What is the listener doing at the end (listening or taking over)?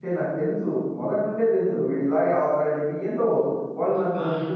taking over